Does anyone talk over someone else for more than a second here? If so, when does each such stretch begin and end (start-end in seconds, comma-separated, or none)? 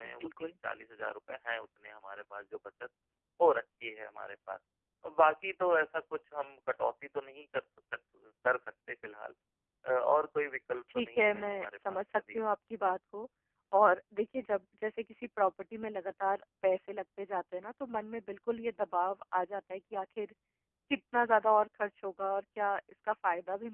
10.9-12.4